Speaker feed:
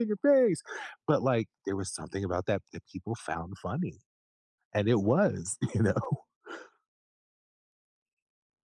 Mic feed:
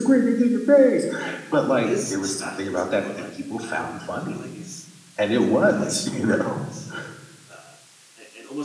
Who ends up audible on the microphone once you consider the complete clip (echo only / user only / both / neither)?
both